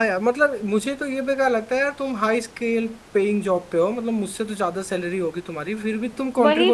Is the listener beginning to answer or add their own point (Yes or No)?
Yes